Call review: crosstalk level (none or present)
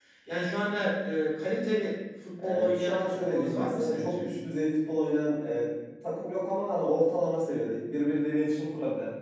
present